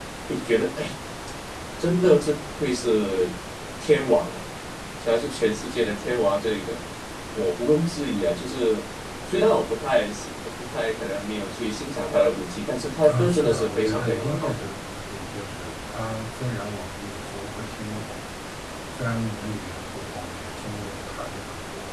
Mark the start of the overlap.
13.0 s

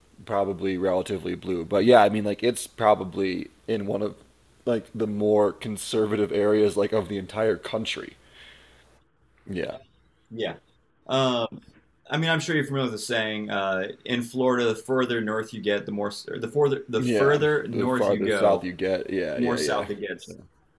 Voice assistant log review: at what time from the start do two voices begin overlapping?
17.0 s

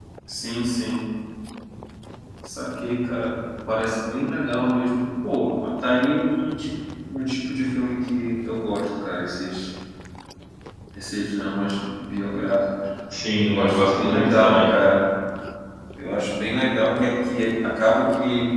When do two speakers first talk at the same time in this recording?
13.5 s

